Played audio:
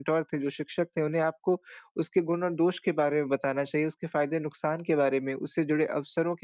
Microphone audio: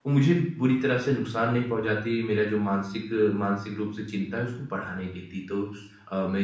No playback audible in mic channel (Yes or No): Yes